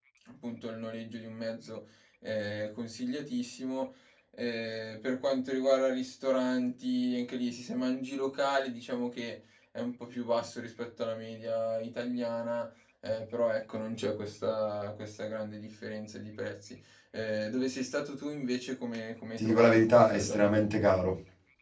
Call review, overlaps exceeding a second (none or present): present